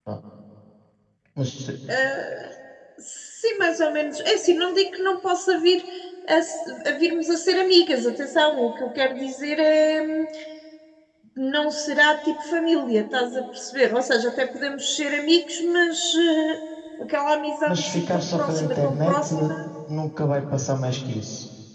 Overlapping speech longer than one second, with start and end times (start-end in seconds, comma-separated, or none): 17.7-19.3